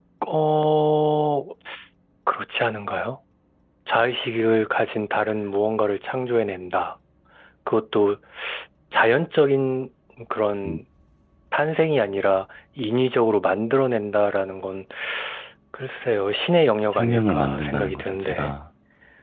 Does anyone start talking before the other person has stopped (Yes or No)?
Yes